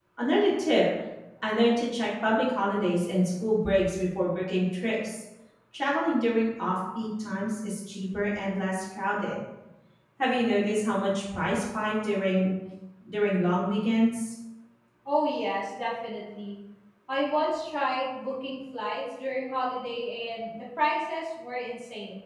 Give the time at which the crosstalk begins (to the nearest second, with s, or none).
none